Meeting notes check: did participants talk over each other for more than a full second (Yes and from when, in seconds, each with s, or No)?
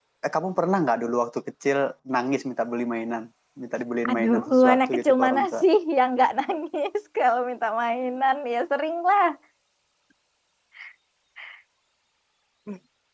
Yes, from 4.1 s